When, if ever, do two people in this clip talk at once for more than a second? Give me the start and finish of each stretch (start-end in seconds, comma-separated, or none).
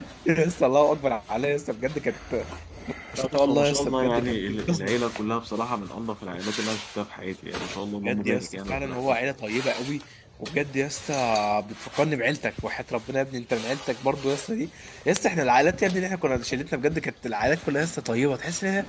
3.2-4.9, 8.0-9.3